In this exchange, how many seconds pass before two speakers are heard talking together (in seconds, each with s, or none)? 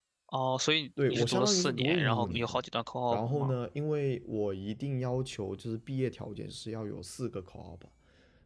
1.1 s